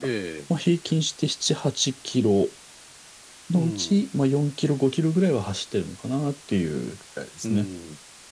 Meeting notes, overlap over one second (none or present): none